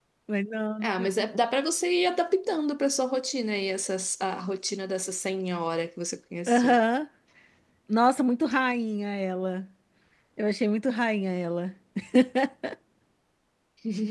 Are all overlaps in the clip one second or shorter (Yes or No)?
Yes